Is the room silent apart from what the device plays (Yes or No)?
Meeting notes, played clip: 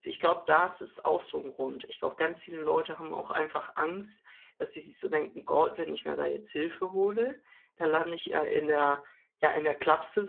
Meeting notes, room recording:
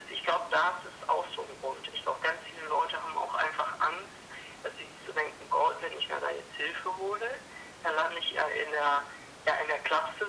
Yes